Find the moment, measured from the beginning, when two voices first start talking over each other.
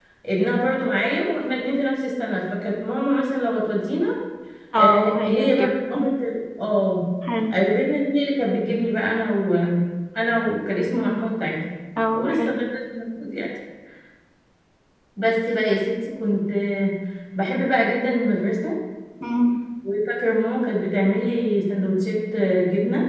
4.8 s

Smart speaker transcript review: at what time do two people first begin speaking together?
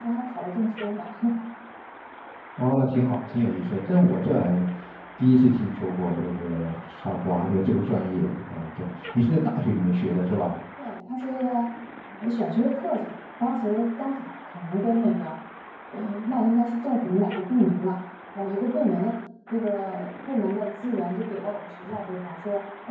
none

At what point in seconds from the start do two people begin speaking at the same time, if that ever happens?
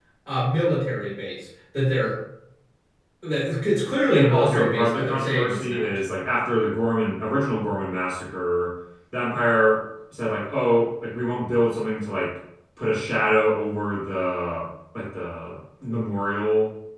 4.1 s

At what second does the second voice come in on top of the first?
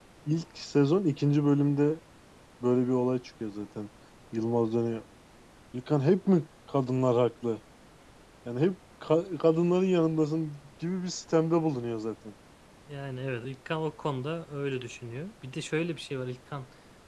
none

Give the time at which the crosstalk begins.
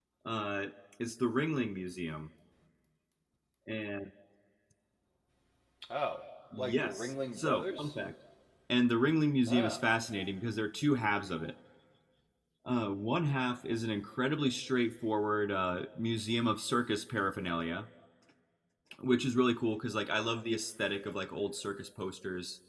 6.6 s

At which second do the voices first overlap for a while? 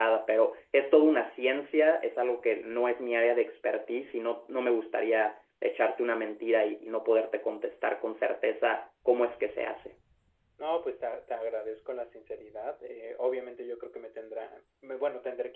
none

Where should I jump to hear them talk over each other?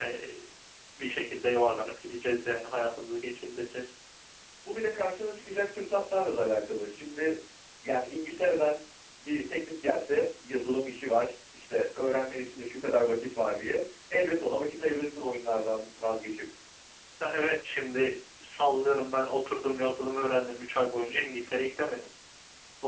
none

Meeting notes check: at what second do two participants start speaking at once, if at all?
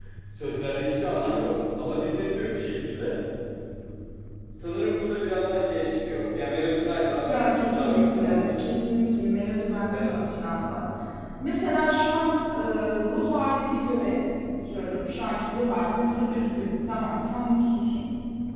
7.3 s

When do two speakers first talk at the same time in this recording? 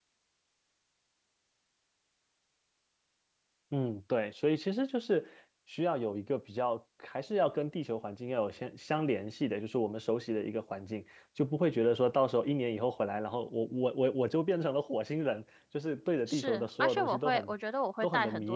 16.3 s

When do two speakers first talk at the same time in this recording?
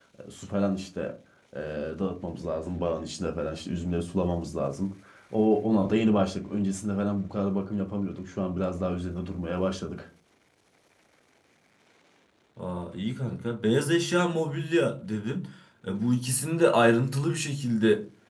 none

